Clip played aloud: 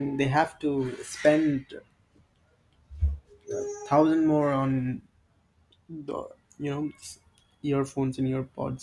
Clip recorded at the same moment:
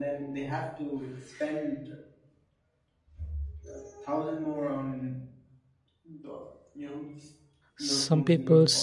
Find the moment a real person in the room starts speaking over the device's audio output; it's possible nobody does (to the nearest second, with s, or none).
8 s